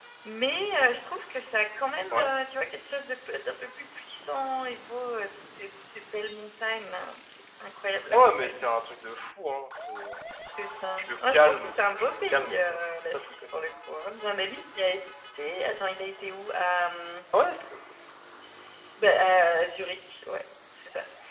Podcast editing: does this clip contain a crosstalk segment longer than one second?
Yes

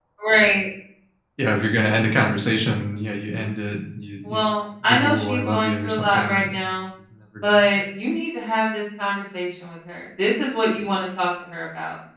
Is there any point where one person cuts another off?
Yes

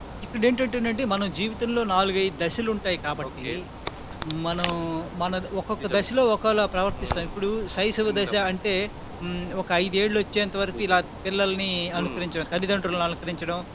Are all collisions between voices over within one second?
Yes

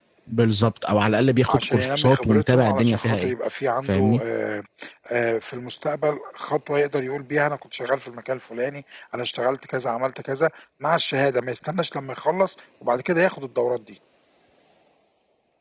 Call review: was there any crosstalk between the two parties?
Yes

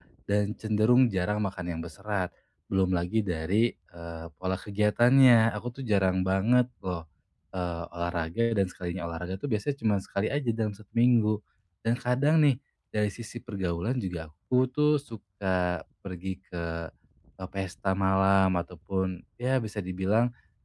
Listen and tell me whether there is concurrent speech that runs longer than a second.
No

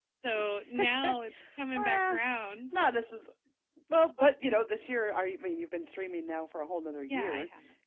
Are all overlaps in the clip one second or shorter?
Yes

